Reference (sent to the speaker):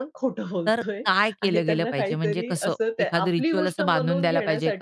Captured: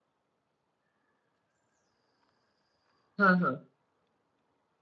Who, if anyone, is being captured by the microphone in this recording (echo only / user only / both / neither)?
user only